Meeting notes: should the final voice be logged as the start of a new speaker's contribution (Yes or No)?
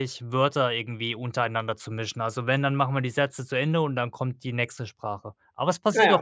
No